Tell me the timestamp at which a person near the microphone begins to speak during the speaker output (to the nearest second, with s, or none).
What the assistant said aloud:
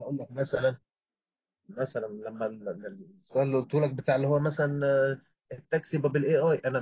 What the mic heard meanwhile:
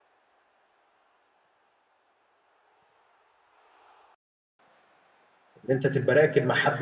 6 s